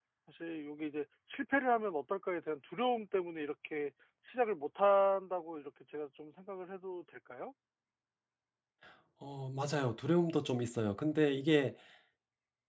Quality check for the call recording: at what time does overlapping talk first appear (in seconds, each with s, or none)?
none